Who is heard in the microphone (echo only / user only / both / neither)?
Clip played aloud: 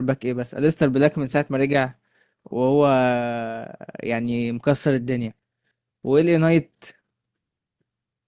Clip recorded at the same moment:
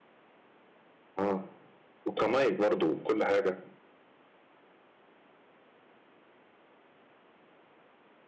user only